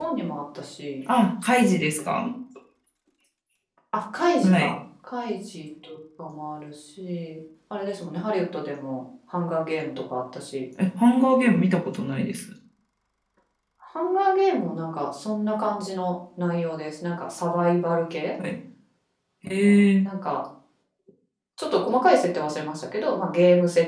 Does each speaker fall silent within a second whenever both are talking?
Yes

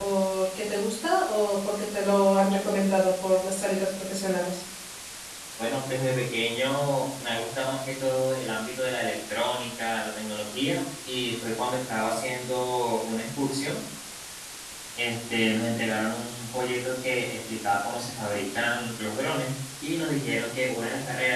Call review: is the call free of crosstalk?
Yes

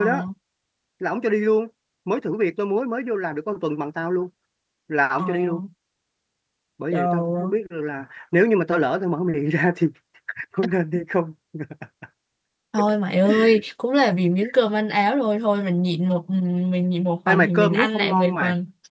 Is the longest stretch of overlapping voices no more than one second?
No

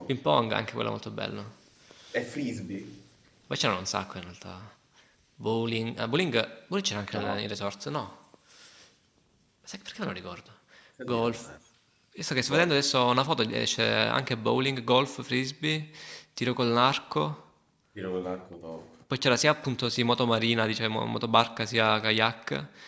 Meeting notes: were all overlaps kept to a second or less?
Yes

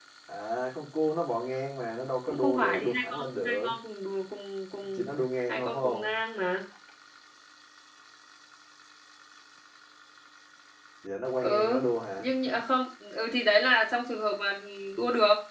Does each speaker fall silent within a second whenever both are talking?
No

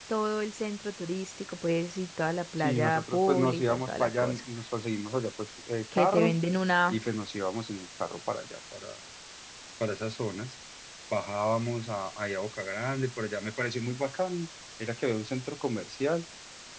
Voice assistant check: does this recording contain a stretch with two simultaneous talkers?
Yes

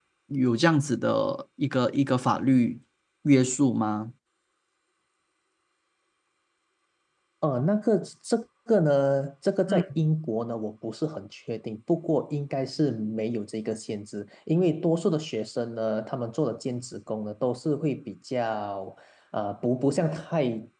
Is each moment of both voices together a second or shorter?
Yes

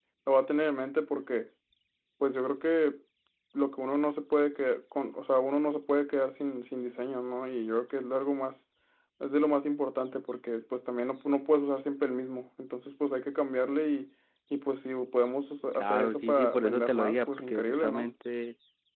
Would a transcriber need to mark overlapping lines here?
Yes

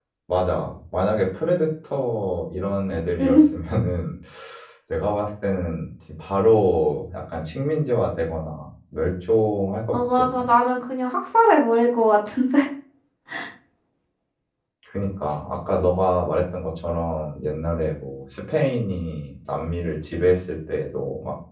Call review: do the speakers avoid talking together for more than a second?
Yes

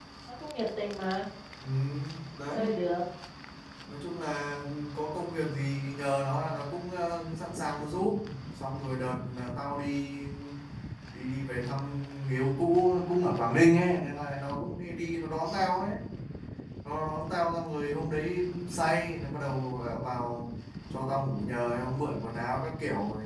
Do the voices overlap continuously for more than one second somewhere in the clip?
No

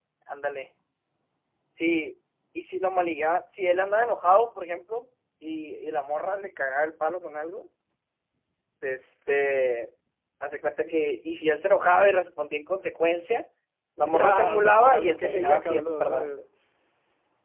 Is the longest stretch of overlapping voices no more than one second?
No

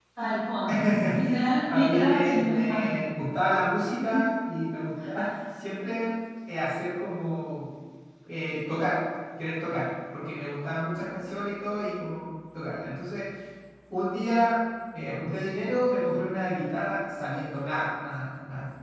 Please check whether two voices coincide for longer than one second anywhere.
Yes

